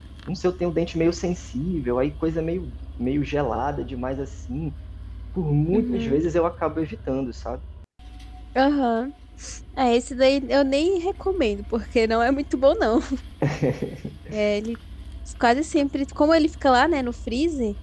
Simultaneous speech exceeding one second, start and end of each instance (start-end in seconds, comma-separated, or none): none